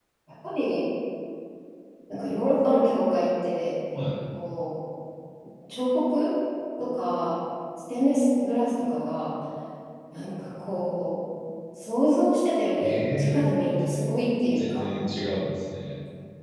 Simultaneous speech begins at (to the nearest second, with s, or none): 13 s